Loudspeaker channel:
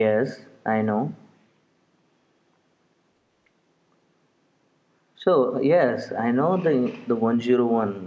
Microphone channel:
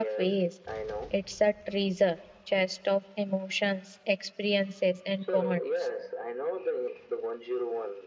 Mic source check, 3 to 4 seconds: user only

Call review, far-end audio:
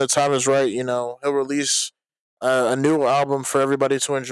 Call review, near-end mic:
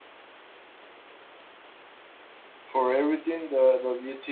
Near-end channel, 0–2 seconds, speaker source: neither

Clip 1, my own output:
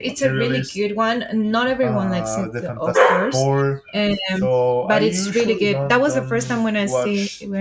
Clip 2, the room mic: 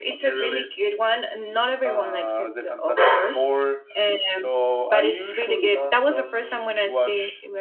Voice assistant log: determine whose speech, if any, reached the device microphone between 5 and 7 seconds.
echo only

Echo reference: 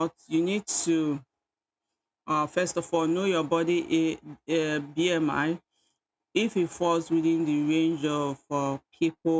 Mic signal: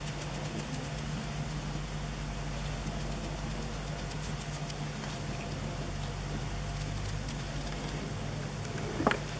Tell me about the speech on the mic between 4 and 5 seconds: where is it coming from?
neither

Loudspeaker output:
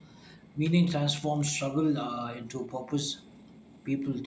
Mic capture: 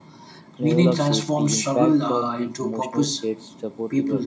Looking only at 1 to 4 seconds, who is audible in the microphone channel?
both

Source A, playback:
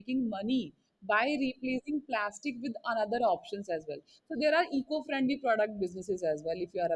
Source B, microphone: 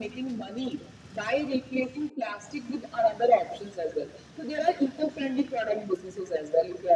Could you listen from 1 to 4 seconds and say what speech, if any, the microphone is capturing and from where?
echo only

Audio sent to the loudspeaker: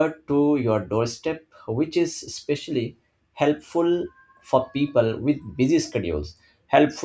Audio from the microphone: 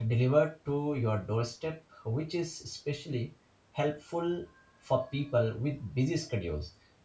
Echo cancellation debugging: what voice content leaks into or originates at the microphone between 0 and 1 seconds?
echo only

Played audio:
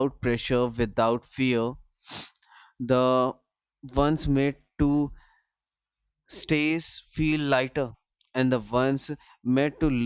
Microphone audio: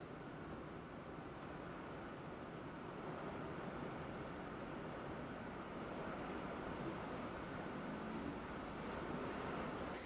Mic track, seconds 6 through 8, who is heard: neither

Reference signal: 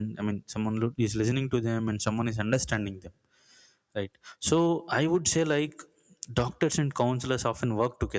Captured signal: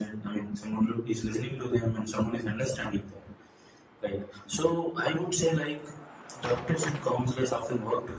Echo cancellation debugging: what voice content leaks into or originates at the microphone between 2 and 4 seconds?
echo only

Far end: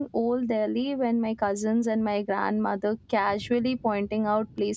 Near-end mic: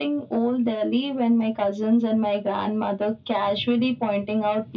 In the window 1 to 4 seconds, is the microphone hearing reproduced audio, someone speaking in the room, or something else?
echo only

